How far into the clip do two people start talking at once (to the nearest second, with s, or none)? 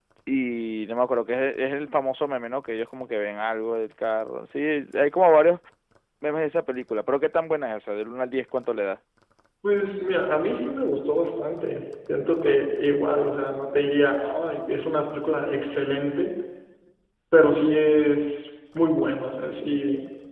none